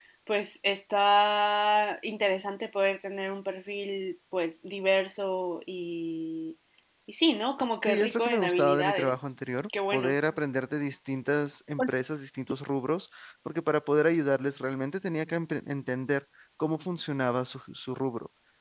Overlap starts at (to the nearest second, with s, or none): 8 s